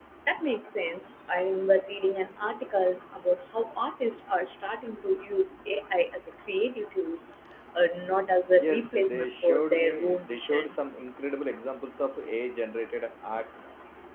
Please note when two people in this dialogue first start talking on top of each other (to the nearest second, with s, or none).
9 s